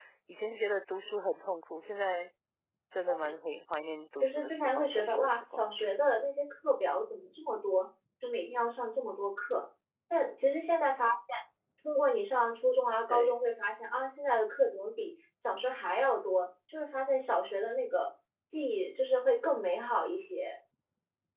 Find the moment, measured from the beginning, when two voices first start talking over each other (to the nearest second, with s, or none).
4 s